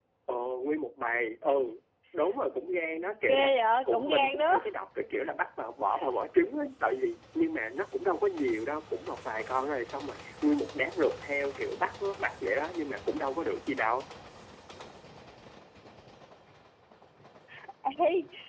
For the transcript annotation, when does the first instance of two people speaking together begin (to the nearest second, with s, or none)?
3 s